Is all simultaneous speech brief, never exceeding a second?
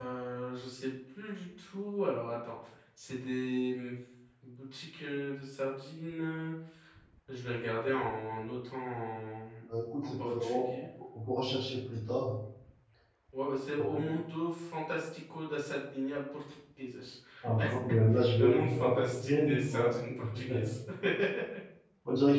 No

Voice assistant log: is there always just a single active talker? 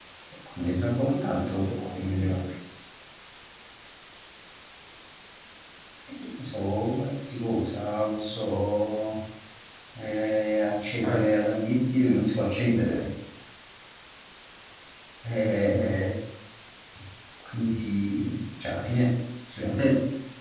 No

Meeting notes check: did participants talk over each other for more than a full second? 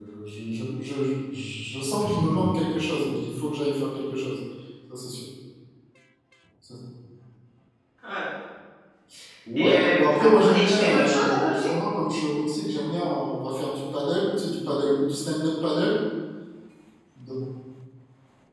Yes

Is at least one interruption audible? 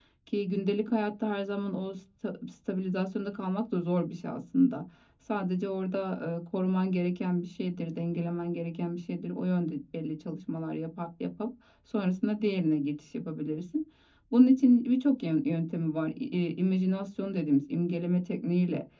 No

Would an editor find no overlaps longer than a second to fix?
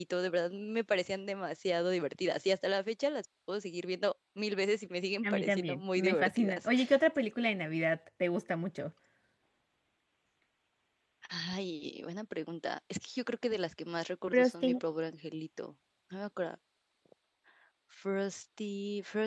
No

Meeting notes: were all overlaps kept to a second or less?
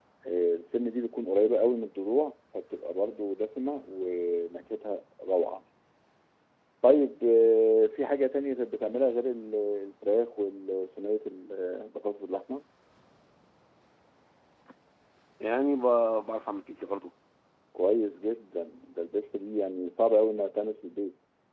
Yes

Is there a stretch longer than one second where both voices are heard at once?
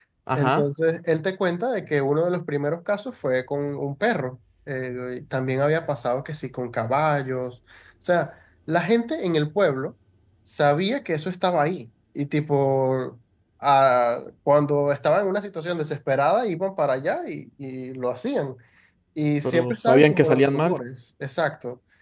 Yes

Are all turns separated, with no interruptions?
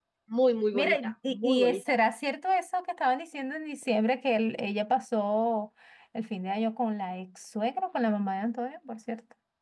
No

